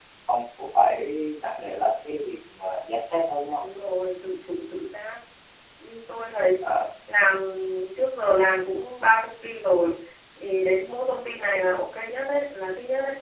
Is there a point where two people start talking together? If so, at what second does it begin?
none

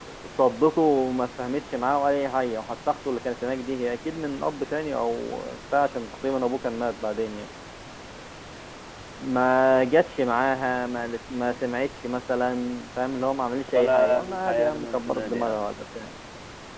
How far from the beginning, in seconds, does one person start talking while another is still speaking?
13.7 s

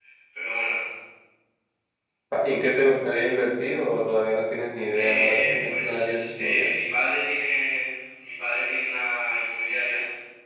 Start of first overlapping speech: 4.9 s

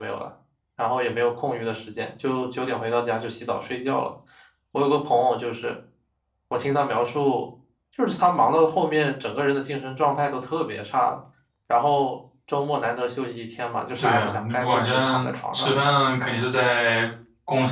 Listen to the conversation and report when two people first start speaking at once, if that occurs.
14.0 s

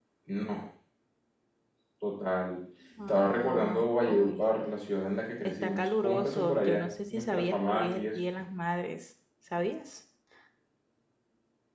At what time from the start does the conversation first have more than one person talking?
3.1 s

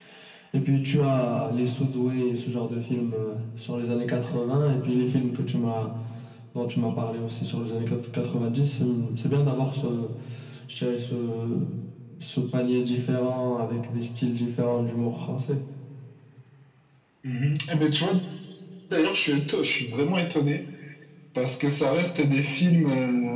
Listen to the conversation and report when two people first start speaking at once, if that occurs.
none

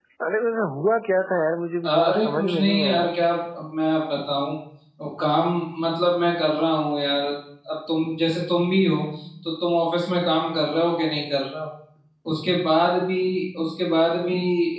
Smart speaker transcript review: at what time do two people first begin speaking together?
1.8 s

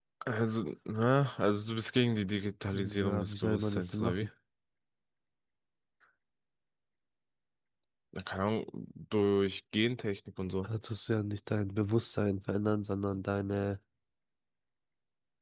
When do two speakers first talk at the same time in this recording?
2.7 s

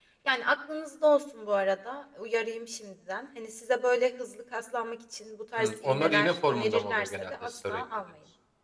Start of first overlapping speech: 5.6 s

